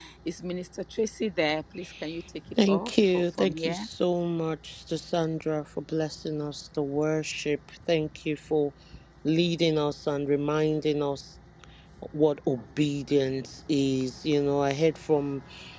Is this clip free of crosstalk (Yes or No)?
No